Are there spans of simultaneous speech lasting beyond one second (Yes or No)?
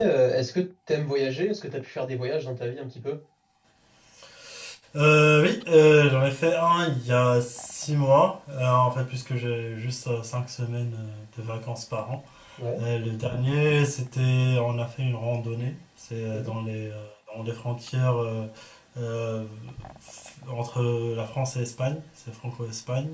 No